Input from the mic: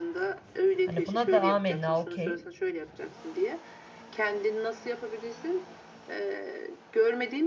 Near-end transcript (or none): Hani buna da amenna okey